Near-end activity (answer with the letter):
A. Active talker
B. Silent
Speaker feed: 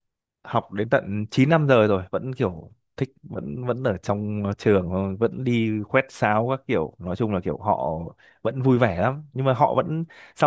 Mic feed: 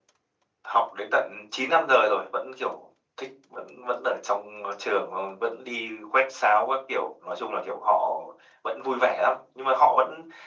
B